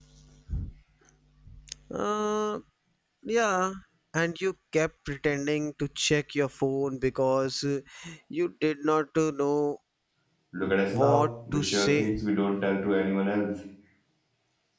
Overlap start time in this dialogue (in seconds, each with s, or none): 10.9 s